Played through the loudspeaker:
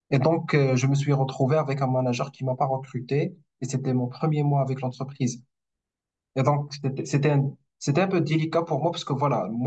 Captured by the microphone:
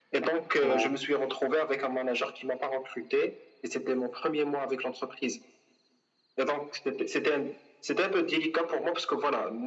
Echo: present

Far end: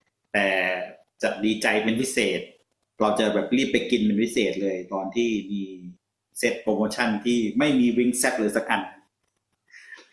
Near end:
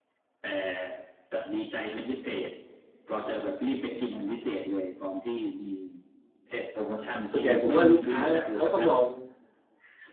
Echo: present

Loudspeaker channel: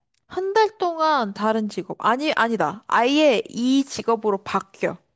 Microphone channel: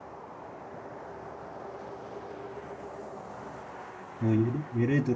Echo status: none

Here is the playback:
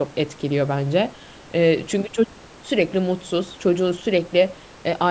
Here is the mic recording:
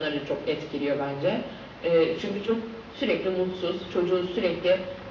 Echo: present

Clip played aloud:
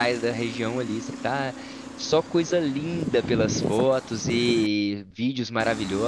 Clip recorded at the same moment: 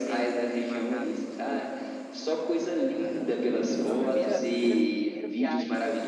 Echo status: present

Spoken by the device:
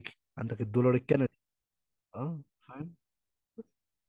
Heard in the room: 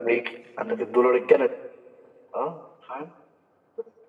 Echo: present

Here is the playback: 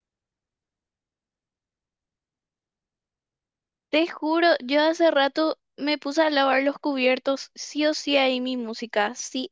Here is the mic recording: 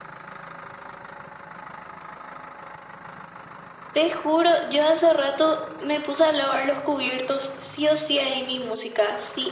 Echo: present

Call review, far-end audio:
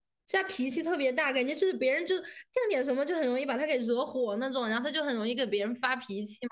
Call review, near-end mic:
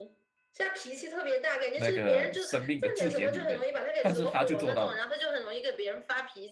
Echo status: present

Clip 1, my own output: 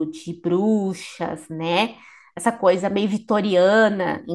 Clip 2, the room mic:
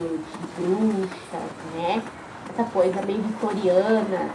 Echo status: present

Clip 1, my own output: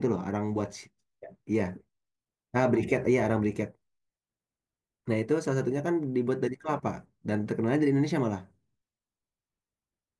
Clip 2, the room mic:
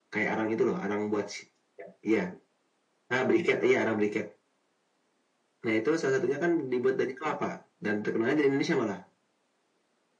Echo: present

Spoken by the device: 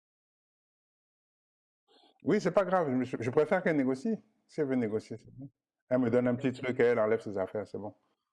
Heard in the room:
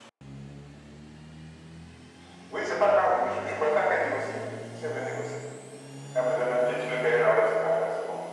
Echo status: present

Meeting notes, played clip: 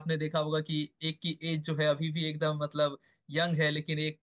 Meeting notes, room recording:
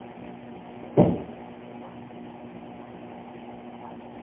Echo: none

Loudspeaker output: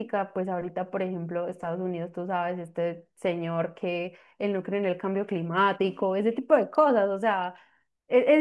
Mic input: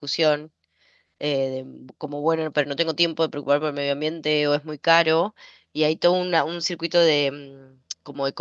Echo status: none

